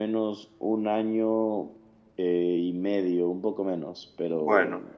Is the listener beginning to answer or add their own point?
No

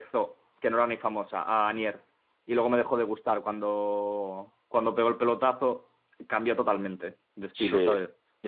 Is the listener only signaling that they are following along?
No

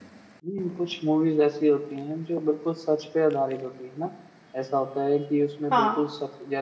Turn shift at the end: No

